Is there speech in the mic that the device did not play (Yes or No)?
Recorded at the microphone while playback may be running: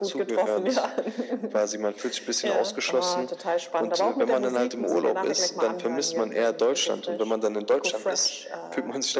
No